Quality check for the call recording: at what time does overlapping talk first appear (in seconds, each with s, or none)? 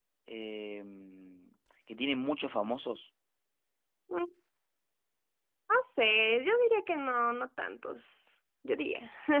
none